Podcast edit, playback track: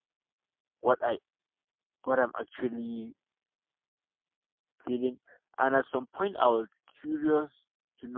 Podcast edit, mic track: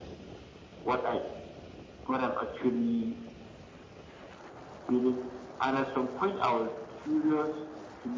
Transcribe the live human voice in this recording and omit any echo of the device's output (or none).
none